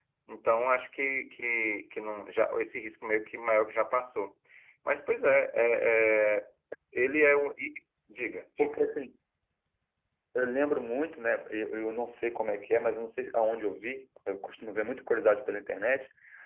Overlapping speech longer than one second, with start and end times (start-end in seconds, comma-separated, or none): none